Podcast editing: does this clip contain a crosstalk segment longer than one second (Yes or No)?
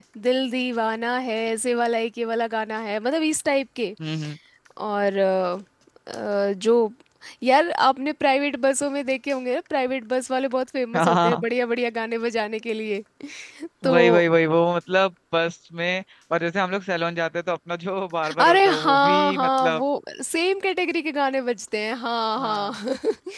Yes